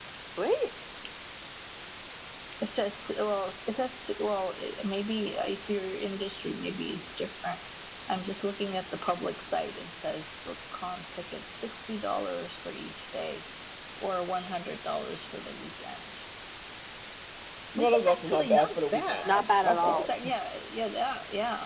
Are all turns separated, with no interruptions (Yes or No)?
No